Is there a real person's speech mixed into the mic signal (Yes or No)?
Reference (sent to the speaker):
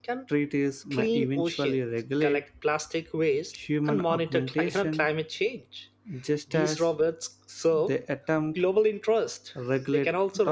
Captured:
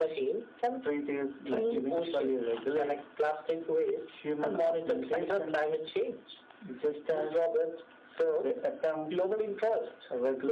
No